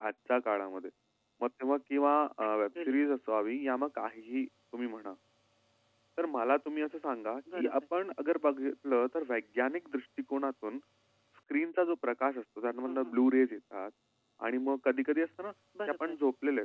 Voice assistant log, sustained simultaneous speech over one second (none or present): none